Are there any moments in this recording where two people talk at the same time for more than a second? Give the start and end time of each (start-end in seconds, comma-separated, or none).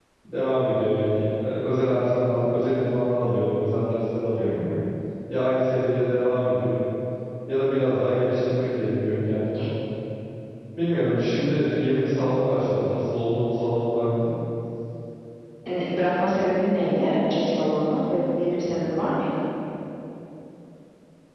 none